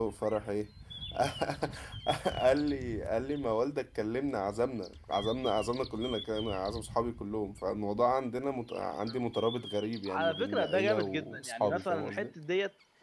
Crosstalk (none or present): present